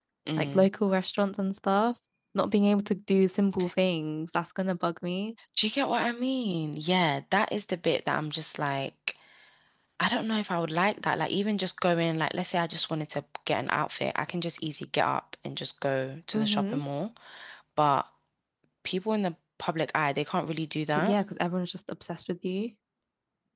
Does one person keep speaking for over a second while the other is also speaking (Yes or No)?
No